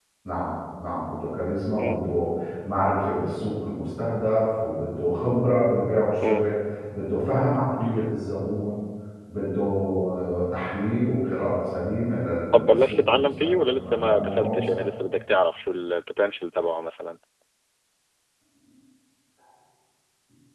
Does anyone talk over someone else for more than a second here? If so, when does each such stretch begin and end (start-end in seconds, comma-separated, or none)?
12.5-14.8